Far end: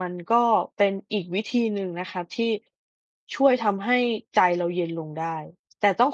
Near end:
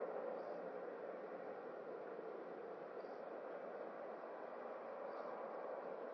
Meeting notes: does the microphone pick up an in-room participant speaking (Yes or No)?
No